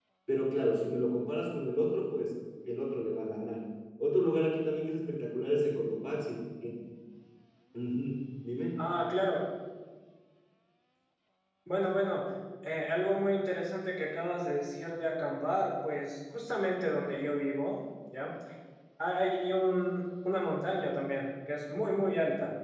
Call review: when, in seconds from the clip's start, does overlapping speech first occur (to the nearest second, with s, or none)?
none